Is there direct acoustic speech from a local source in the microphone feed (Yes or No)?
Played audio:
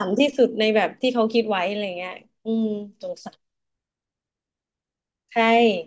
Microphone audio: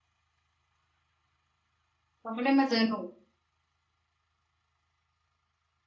Yes